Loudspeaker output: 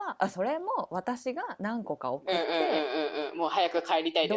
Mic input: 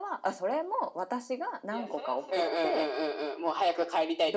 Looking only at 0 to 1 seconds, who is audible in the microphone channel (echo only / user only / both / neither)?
echo only